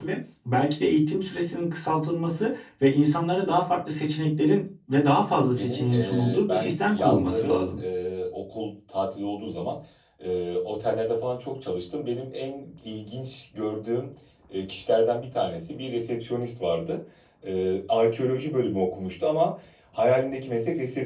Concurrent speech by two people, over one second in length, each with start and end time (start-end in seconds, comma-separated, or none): 5.5-7.7